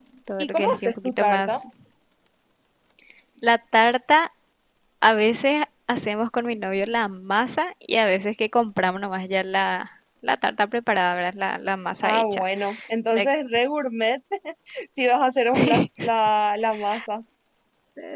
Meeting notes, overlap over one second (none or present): present